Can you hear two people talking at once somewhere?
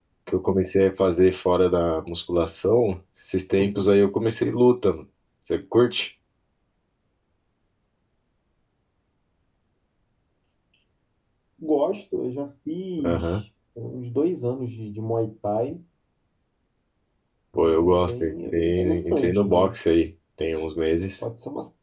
Yes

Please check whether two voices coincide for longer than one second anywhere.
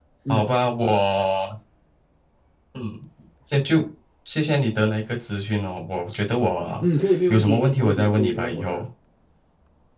Yes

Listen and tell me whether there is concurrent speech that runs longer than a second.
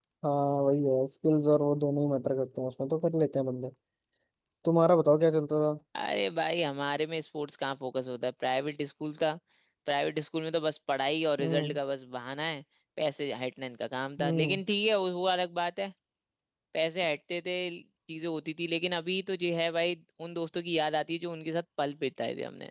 No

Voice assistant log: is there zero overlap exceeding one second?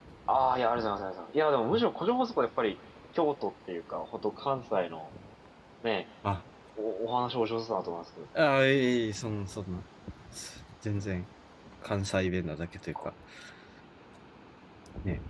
Yes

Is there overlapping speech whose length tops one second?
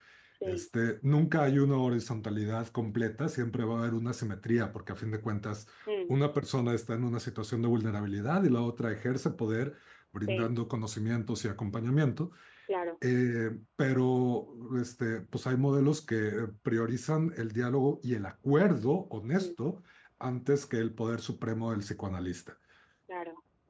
No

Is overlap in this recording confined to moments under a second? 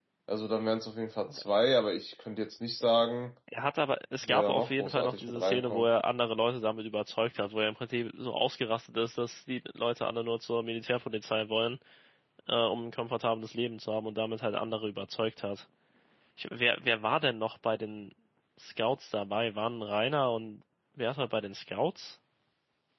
No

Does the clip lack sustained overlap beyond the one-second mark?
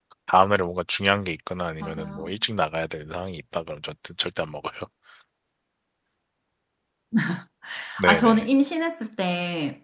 Yes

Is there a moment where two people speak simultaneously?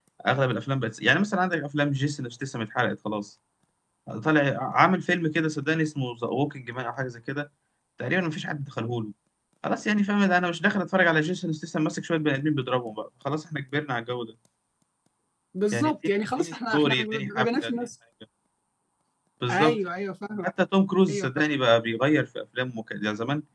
Yes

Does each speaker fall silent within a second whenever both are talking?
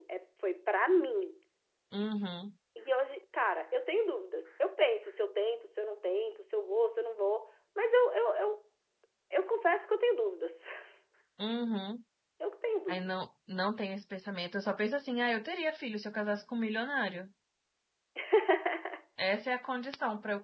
Yes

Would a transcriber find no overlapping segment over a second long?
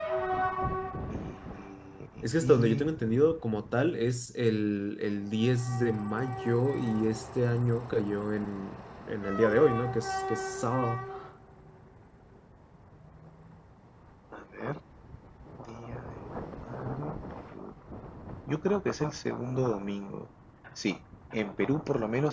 Yes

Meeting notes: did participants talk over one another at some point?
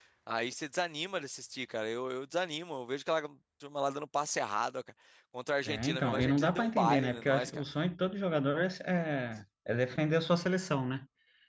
Yes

